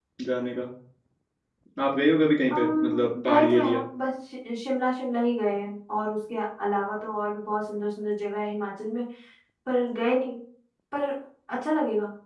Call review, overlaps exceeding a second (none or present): present